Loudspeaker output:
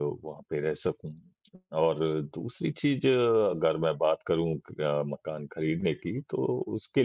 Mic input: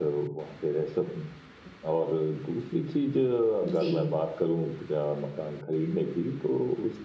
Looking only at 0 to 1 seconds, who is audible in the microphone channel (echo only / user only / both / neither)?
echo only